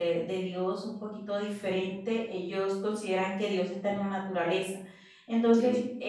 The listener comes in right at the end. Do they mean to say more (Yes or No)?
No